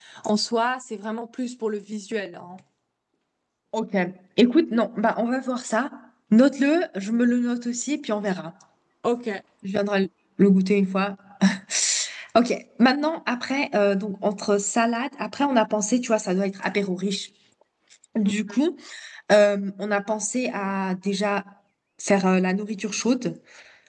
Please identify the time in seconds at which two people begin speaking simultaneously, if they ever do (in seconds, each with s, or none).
none